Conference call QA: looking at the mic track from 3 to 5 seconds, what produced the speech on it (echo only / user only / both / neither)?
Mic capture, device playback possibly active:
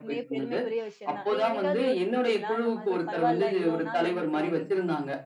both